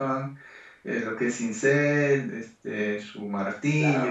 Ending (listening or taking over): taking over